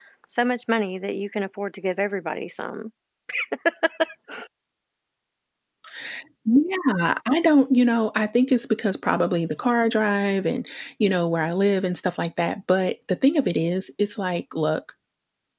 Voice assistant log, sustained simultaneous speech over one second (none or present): none